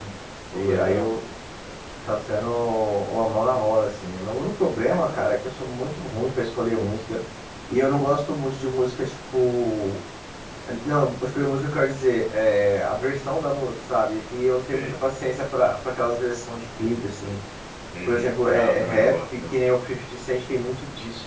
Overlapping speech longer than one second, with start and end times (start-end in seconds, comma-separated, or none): 18.1-19.6